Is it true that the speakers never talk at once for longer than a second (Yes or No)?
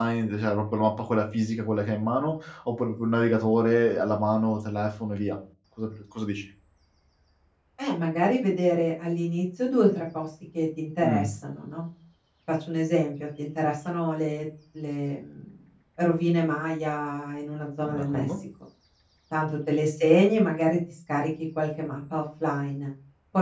Yes